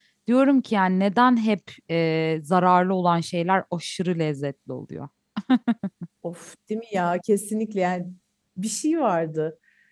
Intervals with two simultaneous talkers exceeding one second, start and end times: none

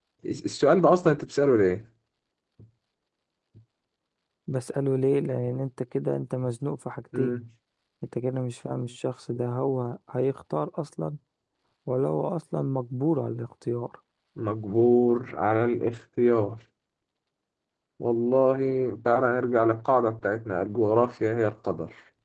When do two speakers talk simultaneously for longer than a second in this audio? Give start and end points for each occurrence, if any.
none

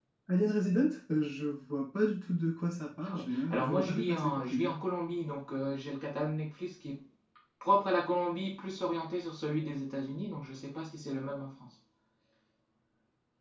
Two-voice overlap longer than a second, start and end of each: 3.1-4.7

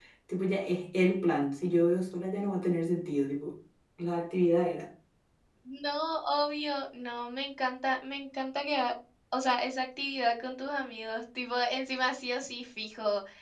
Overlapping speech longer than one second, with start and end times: none

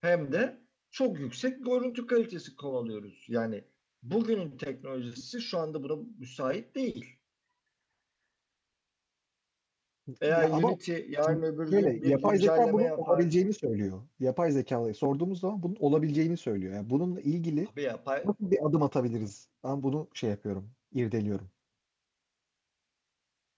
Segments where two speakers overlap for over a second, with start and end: 11.2-13.3

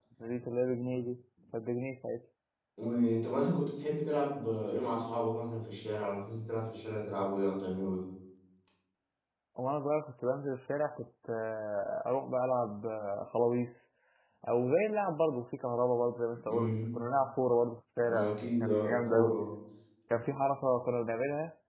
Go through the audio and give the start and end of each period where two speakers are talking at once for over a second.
18.1-19.3

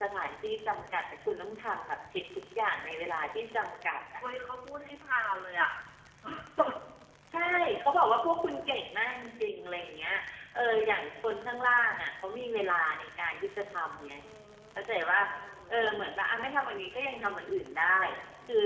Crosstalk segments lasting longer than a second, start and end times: none

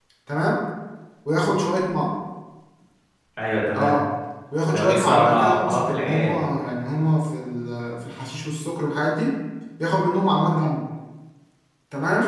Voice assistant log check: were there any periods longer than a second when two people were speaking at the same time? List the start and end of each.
4.7-6.5

